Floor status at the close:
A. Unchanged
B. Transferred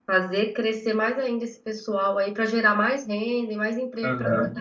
B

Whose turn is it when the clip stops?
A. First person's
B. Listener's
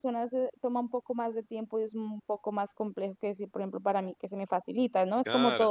A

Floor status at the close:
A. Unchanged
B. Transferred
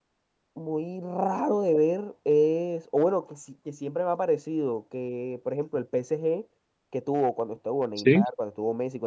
A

